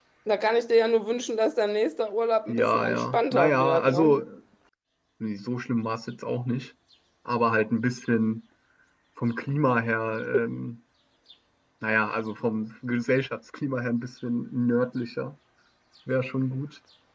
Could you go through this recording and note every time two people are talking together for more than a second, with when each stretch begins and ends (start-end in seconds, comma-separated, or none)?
2.5-4.2